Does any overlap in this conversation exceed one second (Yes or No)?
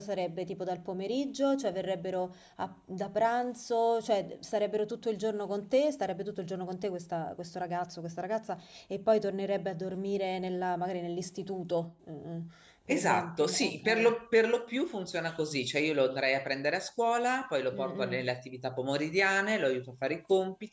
Yes